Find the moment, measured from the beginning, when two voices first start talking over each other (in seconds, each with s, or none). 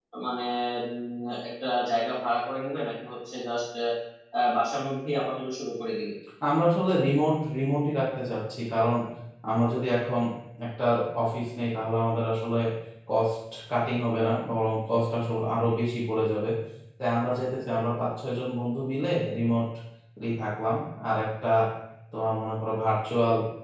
none